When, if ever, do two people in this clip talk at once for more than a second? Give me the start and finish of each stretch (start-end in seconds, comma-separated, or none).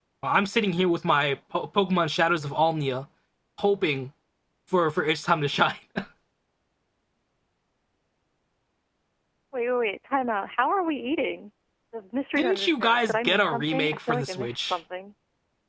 12.4-14.8